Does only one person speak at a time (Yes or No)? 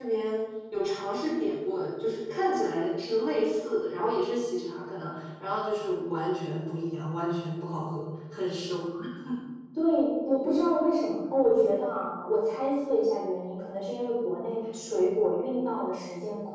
Yes